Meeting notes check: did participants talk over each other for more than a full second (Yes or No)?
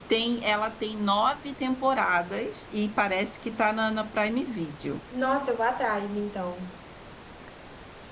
No